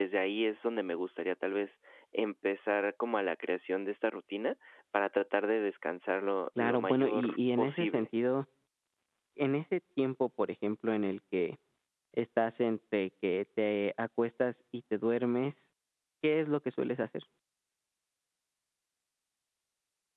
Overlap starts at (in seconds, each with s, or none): 6.6 s